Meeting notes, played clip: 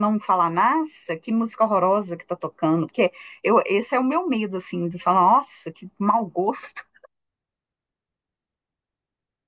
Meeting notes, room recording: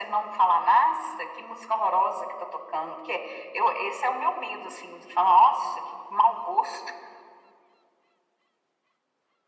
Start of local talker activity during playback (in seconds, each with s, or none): none